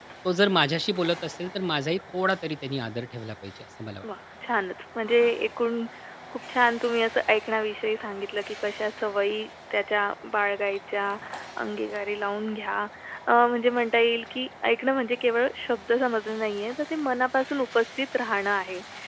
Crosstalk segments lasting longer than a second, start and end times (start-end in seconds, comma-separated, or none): none